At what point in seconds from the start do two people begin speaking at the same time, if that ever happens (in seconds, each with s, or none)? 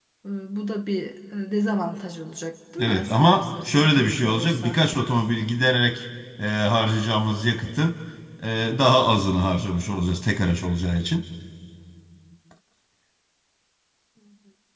2.8 s